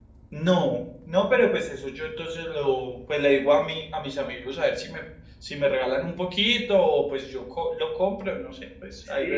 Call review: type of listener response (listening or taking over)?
taking over